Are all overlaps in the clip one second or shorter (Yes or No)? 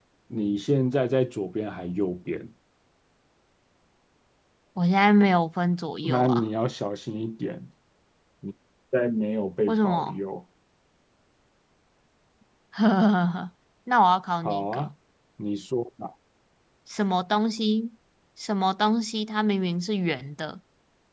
Yes